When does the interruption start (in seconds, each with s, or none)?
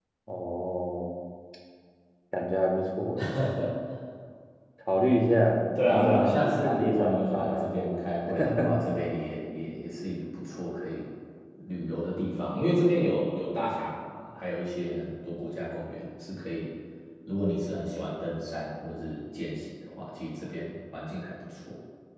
5.9 s